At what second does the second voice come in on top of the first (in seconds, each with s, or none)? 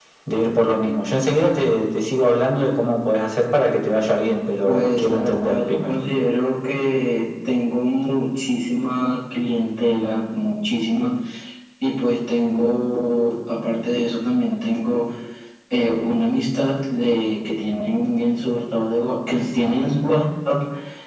4.7 s